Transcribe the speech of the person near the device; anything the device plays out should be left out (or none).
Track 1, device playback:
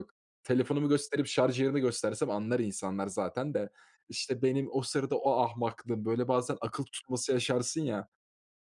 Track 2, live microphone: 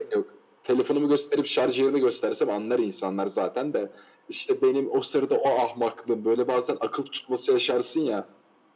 none